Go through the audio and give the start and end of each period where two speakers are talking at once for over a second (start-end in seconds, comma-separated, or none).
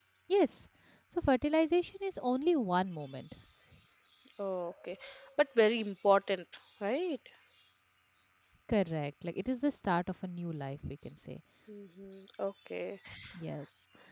none